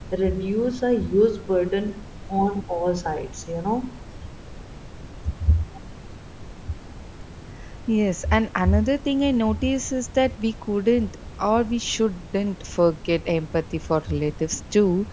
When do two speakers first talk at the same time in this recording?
none

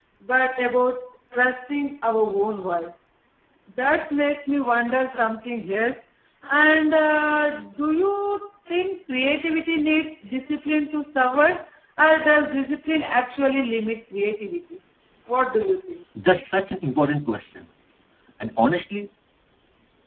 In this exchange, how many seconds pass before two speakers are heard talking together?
none

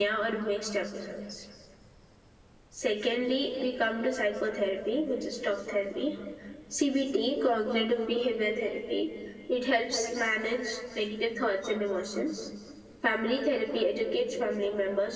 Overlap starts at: none

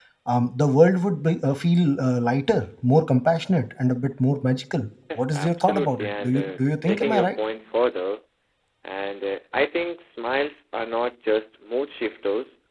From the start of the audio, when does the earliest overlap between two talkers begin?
5.1 s

